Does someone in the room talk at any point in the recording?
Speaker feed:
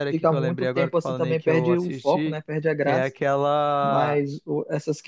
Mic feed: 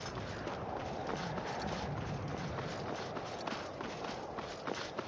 No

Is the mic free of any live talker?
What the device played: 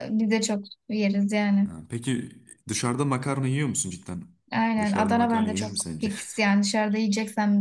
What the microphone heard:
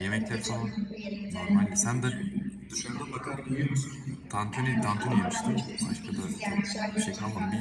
No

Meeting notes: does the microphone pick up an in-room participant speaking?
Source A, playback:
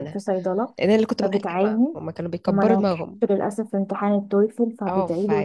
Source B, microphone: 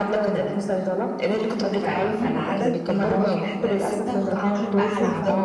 Yes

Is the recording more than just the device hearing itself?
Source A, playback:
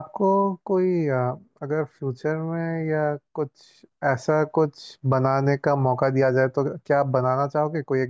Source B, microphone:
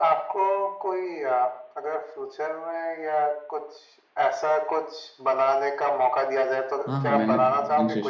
Yes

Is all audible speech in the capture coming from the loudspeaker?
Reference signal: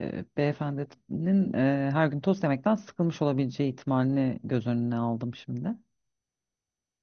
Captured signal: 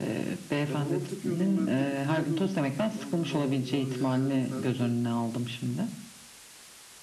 No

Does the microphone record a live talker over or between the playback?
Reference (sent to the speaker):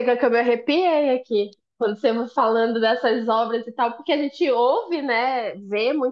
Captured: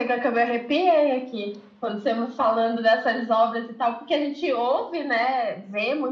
No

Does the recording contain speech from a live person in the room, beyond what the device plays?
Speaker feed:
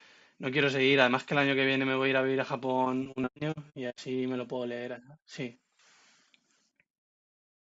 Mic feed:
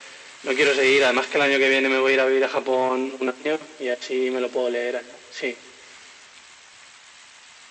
No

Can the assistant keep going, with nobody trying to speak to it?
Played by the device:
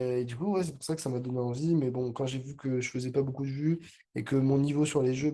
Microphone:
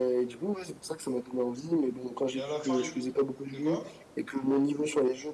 No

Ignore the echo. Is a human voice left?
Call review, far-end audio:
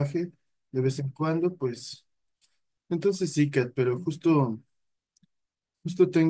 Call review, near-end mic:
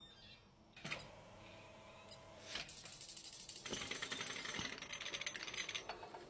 No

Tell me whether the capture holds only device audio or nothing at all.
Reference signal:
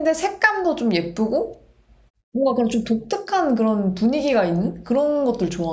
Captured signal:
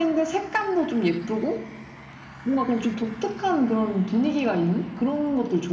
Yes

